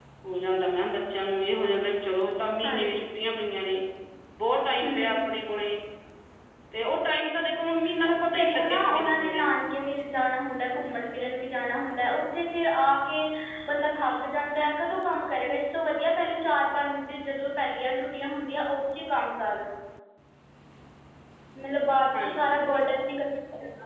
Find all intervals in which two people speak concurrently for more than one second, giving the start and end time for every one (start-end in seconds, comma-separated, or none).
8.1-9.5